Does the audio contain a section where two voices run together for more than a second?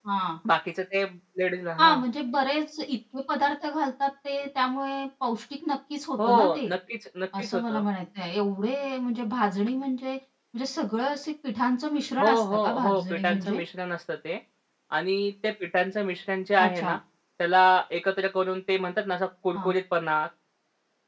Yes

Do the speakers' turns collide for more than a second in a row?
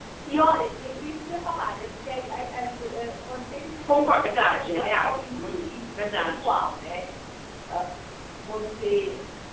Yes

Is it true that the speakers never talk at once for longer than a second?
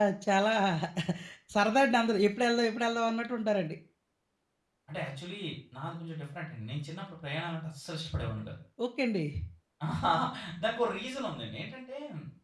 Yes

